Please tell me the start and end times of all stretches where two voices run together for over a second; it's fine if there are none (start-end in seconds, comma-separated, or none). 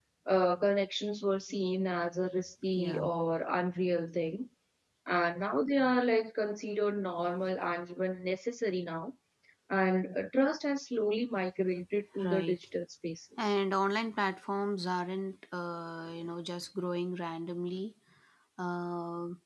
none